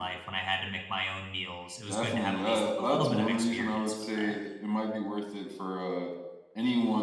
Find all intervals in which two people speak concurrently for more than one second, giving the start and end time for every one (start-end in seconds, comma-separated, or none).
1.9-4.4